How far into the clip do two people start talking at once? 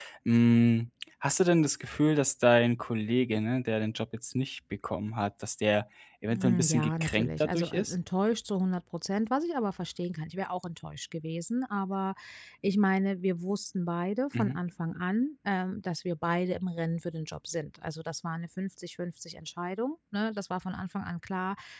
6.3 s

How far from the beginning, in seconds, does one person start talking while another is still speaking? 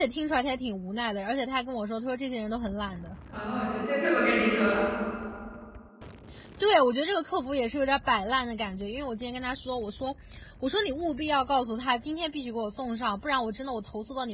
none

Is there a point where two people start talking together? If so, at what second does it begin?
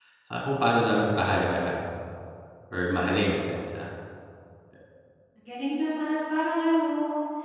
none

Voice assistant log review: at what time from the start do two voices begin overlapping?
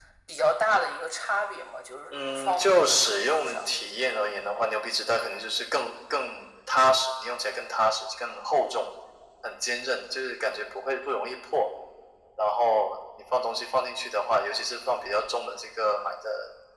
2.1 s

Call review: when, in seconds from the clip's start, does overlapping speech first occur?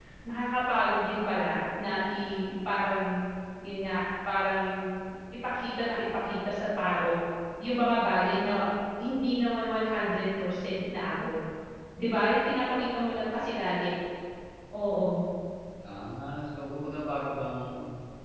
none

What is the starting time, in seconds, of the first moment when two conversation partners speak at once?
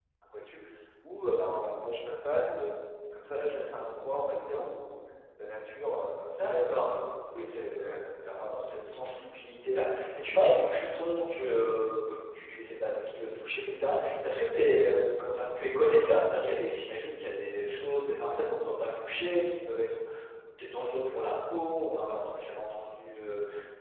6.4 s

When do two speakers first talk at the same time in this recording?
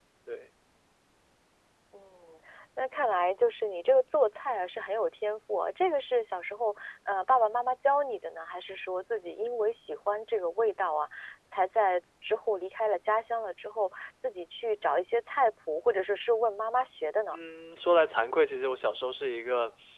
none

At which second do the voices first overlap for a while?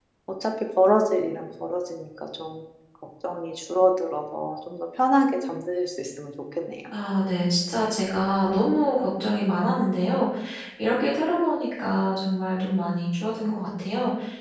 none

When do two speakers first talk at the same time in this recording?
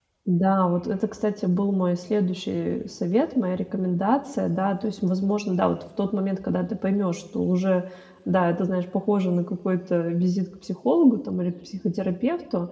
none

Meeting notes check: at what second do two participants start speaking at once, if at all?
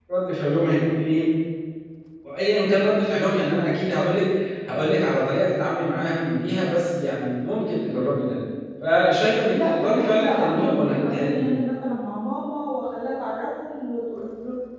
9.5 s

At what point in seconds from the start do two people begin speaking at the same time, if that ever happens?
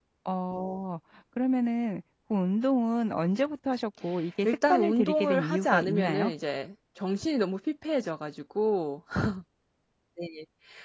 4.4 s

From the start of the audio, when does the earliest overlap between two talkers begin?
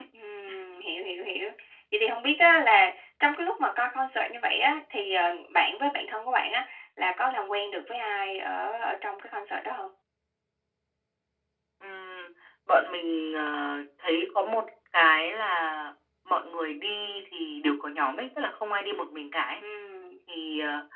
none

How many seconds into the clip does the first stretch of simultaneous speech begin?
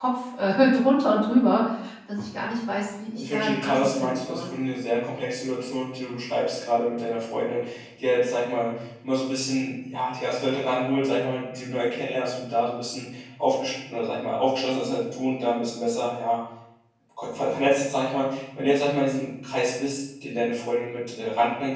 3.1 s

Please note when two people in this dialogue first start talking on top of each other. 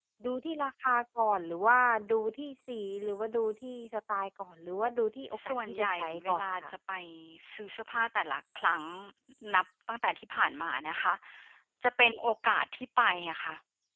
5.3 s

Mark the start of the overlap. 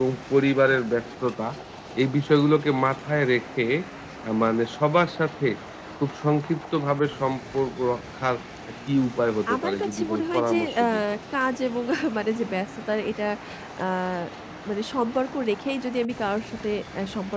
9.5 s

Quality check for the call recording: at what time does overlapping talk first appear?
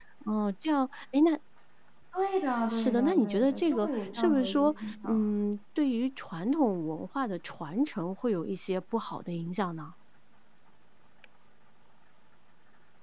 2.7 s

